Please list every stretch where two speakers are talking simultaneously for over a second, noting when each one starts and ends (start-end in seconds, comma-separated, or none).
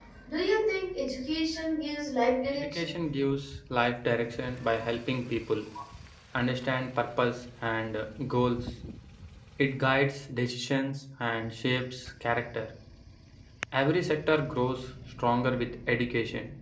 none